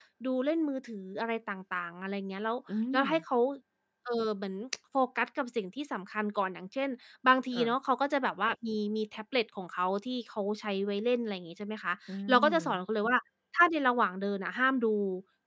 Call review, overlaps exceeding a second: none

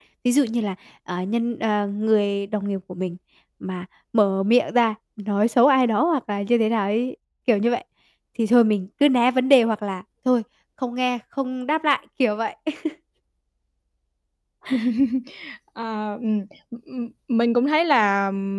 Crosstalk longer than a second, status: none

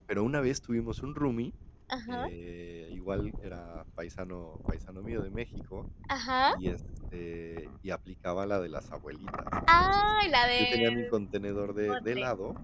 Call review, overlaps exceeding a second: none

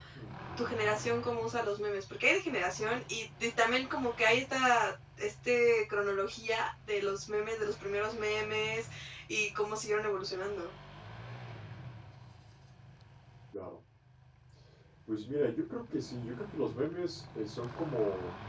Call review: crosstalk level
none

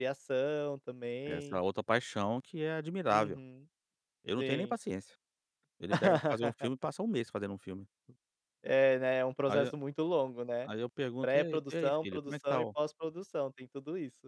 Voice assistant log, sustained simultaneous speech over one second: present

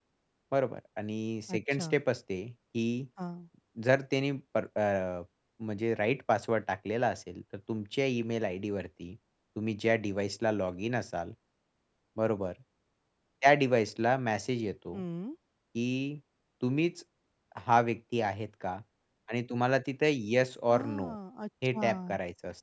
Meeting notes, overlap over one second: none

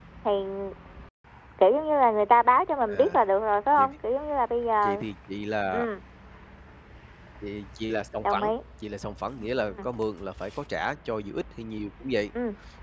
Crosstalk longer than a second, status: none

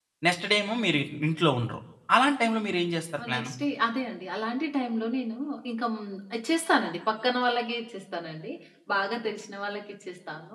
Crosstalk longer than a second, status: none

